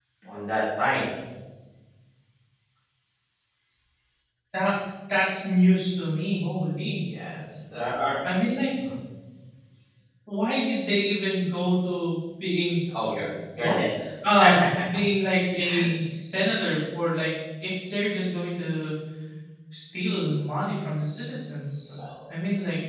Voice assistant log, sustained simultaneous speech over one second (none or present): none